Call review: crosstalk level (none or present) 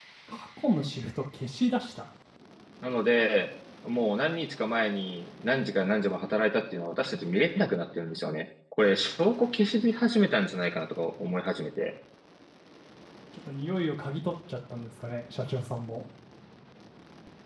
none